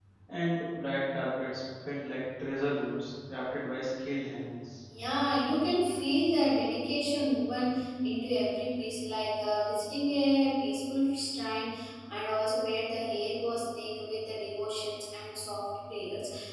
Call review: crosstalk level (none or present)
none